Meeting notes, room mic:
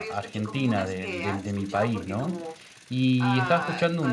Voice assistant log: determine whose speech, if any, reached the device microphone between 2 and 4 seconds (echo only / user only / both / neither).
both